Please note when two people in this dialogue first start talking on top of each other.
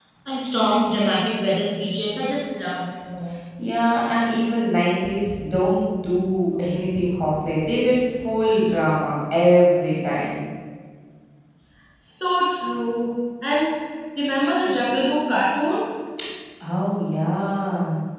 none

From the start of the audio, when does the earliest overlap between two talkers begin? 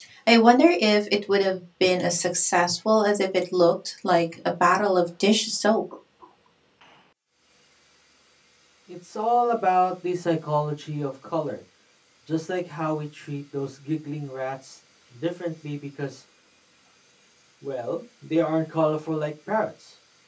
none

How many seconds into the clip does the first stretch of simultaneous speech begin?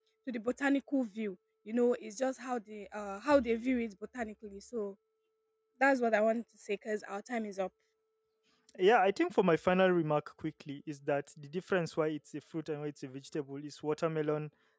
none

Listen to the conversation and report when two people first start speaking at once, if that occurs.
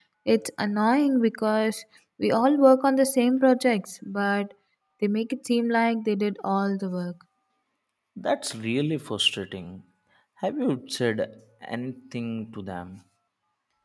none

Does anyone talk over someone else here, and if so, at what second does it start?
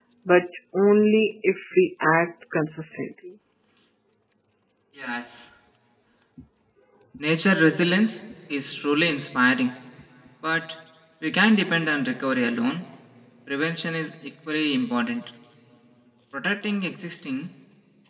none

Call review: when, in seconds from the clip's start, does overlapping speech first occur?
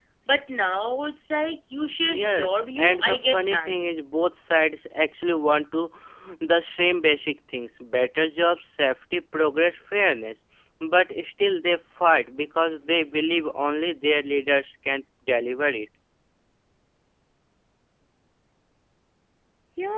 2.1 s

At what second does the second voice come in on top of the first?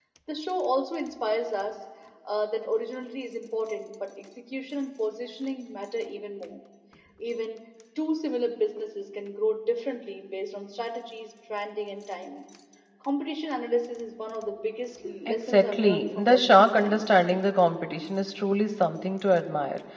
15.0 s

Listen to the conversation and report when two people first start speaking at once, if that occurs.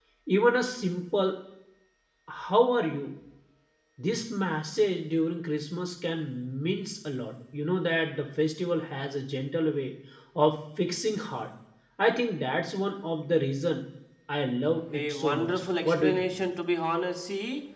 14.9 s

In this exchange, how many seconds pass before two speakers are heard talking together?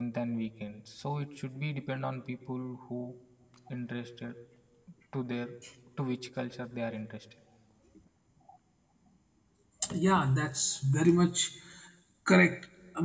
none

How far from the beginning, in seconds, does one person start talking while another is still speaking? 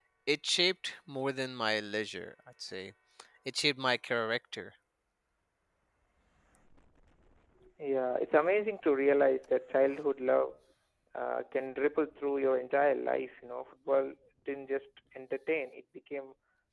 none

